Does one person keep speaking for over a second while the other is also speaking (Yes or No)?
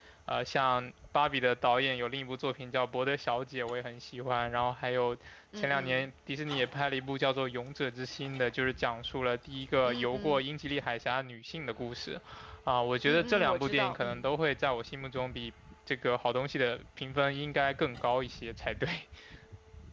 Yes